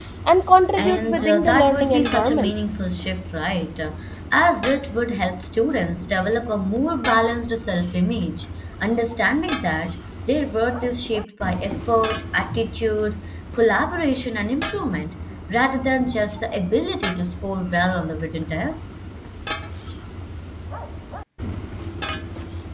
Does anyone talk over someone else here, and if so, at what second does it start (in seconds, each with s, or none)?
0.8 s